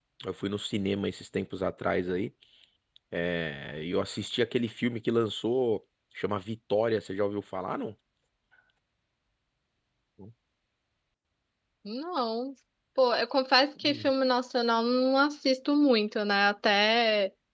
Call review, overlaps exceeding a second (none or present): none